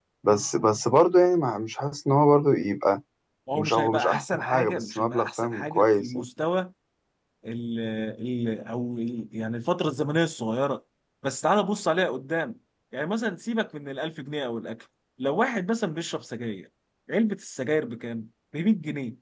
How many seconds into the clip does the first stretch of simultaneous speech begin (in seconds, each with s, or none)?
3.6 s